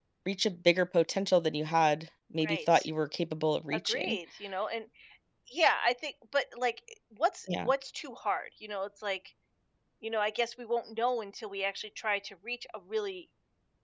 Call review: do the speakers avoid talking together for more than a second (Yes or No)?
Yes